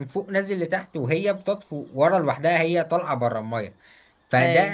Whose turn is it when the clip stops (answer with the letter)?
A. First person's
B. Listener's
A